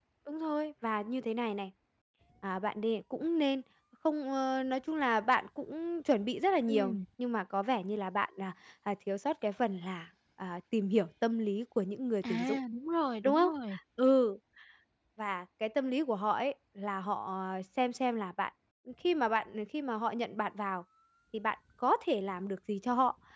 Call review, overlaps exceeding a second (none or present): none